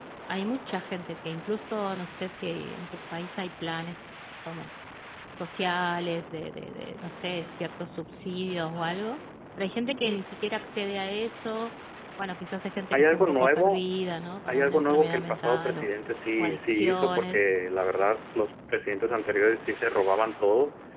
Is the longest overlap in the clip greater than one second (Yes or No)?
Yes